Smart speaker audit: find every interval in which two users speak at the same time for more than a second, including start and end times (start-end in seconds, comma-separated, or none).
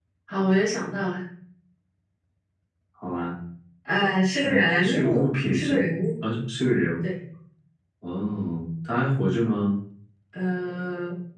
4.4-5.7